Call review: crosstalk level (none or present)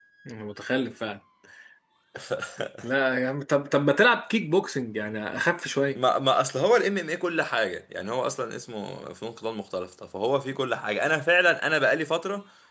none